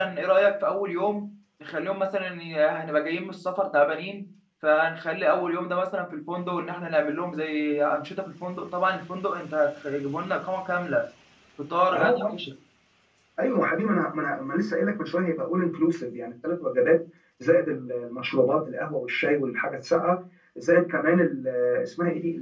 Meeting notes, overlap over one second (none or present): none